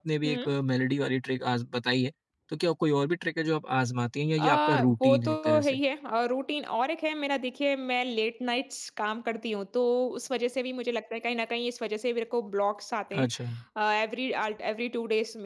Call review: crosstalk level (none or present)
present